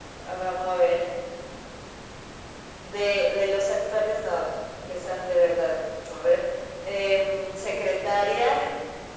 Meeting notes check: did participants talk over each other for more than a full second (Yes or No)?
No